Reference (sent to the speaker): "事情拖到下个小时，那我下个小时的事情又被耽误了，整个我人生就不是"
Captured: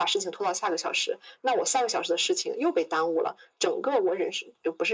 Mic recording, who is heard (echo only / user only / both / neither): echo only